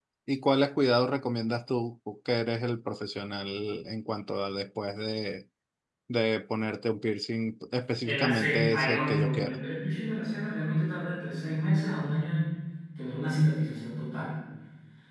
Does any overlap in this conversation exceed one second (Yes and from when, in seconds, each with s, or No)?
Yes, from 8.0 s